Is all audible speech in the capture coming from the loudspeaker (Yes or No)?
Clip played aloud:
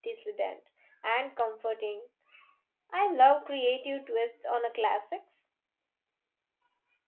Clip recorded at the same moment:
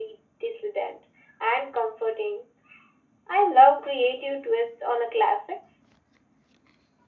Yes